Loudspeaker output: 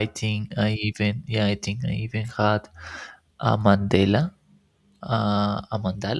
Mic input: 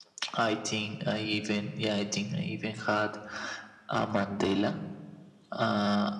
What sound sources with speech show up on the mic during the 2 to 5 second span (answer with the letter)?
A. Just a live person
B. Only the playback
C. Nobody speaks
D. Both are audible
B